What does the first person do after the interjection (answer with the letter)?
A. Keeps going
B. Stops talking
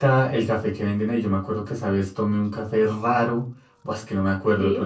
A